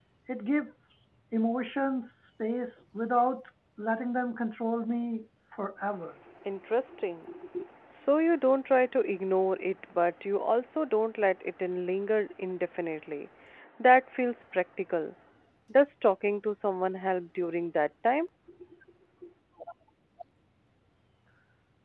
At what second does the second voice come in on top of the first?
none

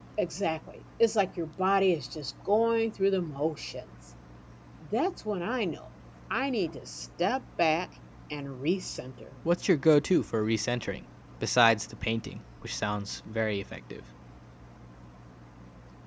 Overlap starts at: none

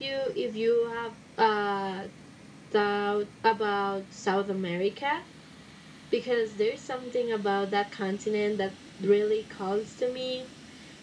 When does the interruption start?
none

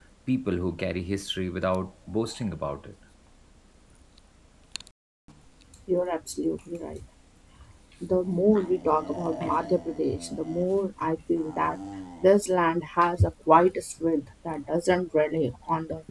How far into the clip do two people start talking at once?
none

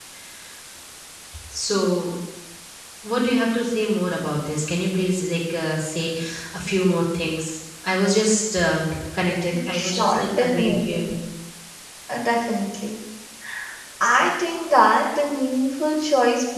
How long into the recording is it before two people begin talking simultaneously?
9.5 s

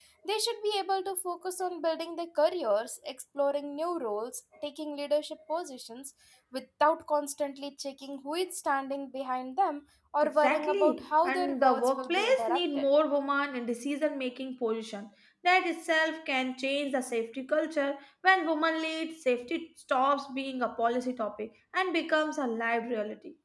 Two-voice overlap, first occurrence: 10.2 s

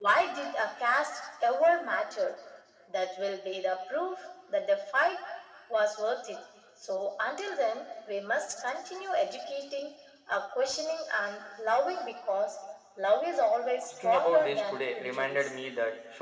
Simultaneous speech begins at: 13.9 s

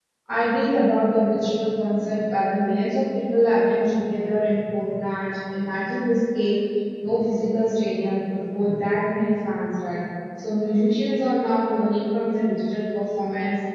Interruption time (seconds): none

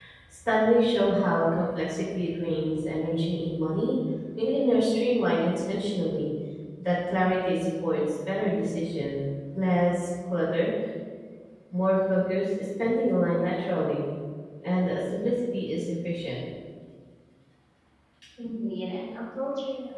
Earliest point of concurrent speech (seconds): none

